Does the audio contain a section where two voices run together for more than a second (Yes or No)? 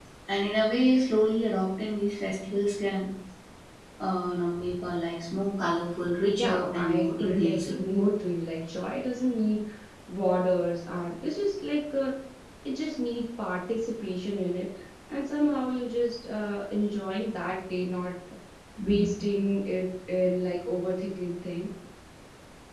Yes